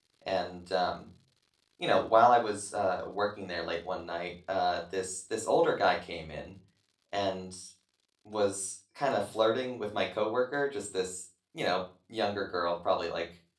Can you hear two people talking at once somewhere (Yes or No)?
No